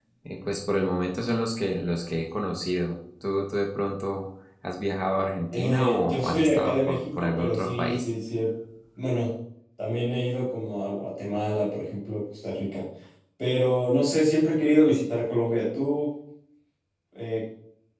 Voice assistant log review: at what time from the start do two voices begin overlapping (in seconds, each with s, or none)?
5.5 s